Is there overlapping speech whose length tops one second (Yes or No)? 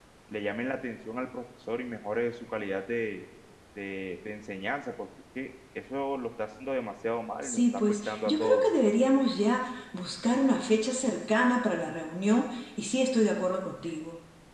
Yes